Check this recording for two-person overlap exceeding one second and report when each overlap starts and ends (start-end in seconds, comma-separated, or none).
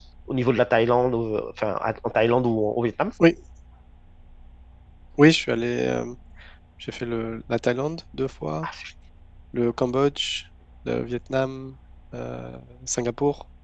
none